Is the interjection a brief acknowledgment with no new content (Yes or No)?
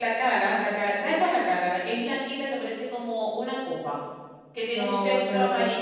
No